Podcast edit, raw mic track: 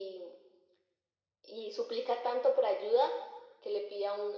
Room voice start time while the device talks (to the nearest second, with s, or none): none